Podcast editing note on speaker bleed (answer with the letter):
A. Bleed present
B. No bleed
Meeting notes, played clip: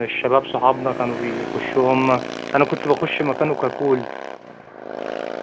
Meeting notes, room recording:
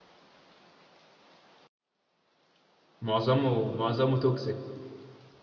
B